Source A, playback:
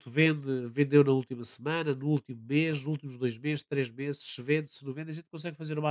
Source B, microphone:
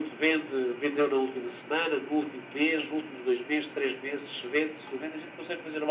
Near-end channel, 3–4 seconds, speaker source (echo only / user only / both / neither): echo only